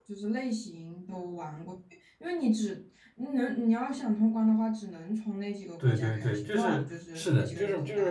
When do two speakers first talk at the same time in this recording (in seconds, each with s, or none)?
5.8 s